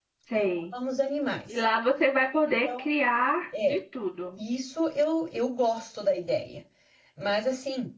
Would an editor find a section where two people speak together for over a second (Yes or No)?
No